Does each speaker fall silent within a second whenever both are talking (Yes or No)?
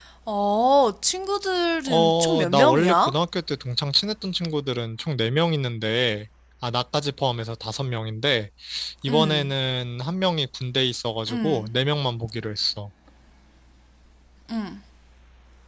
No